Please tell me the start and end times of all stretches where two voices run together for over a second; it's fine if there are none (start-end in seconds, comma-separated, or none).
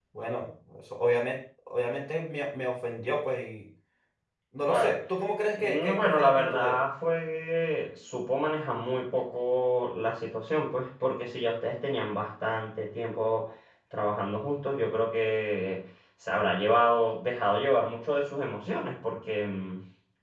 5.6-6.8